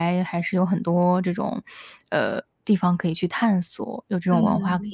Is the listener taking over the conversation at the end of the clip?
Yes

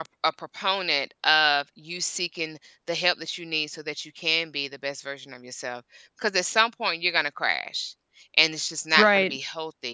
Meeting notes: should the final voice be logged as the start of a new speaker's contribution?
No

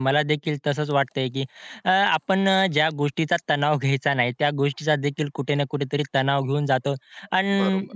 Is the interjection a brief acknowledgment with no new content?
Yes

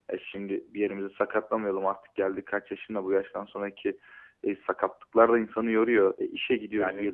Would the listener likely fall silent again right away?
No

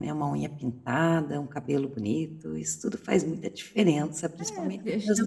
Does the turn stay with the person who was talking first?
No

